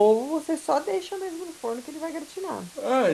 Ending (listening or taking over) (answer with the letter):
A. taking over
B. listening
A